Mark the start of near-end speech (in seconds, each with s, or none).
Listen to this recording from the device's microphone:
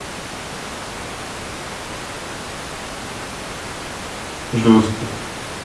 4.5 s